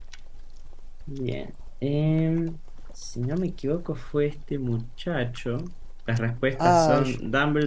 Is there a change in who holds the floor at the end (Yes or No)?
No